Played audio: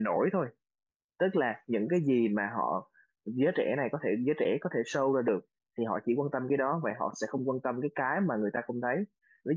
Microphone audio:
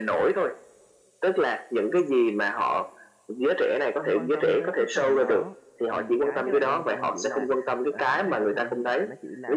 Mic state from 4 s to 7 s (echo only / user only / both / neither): both